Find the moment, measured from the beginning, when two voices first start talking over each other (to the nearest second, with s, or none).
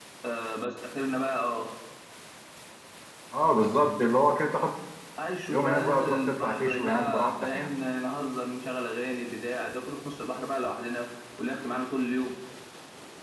5 s